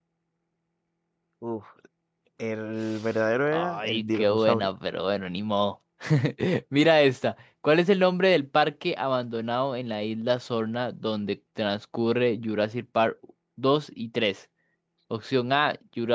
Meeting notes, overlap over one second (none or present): present